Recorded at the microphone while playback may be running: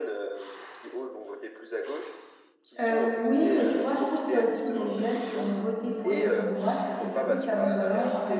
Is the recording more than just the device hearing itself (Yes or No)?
Yes